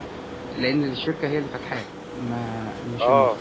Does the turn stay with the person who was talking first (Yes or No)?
No